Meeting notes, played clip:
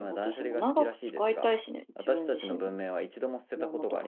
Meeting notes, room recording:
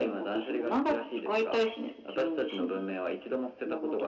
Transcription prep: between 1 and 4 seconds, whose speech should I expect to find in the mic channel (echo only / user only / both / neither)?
echo only